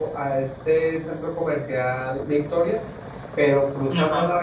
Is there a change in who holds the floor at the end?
No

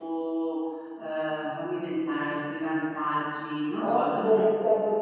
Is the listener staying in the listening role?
No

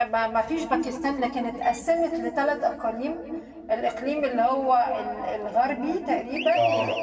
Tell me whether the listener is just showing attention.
Yes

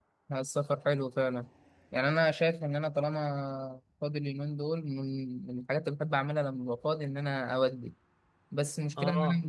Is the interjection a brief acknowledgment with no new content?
Yes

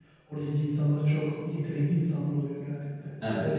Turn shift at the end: Yes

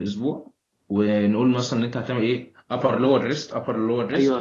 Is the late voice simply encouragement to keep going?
No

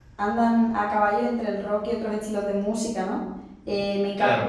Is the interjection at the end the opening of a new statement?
No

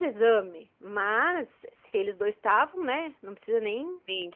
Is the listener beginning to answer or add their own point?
No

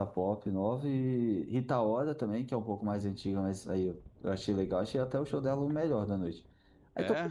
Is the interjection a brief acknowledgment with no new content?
Yes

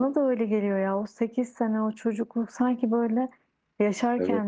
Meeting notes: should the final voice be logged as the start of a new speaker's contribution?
No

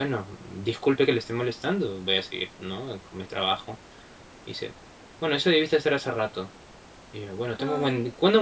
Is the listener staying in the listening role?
Yes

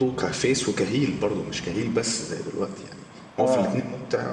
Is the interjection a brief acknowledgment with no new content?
Yes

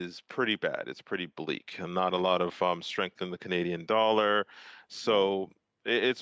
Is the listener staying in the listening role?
Yes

